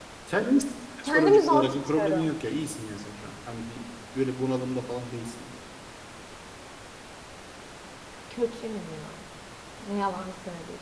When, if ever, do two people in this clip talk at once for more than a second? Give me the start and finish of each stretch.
1.0-2.3

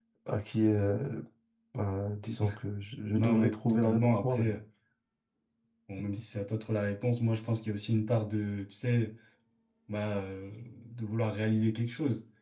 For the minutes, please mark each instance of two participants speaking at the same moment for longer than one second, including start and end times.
3.2-4.5

